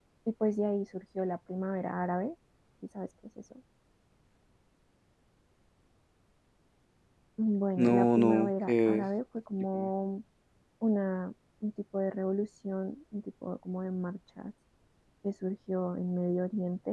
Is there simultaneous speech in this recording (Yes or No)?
Yes